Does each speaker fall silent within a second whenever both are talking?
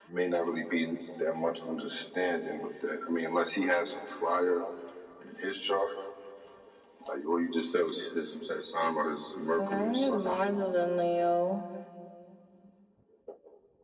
No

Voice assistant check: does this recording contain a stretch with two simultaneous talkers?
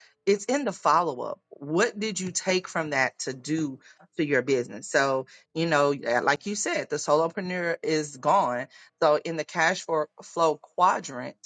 No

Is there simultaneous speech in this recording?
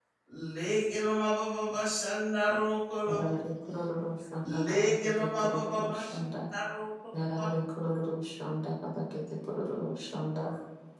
Yes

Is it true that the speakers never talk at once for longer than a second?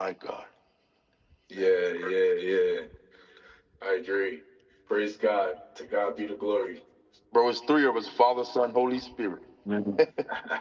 Yes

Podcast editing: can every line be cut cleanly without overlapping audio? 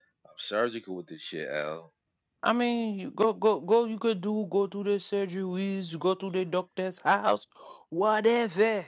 Yes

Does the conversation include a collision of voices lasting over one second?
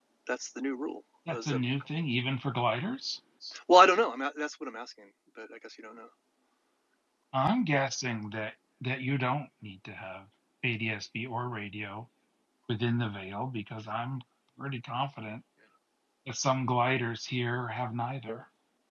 No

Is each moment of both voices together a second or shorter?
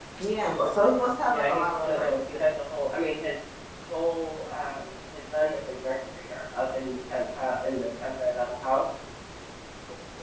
No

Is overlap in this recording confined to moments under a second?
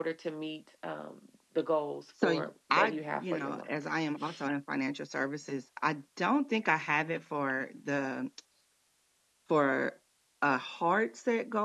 No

